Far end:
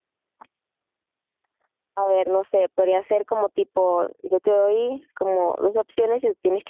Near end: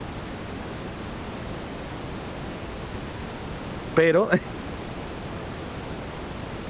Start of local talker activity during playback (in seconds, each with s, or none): 3.9 s